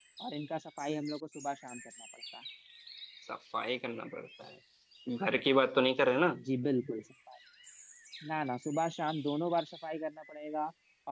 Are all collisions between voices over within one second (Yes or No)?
Yes